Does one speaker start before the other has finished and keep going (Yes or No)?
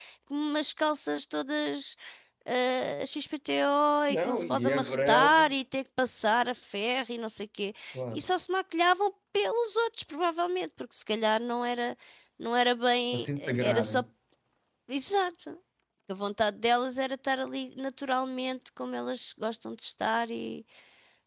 Yes